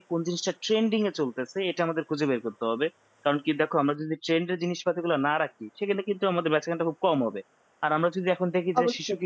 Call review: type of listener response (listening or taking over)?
listening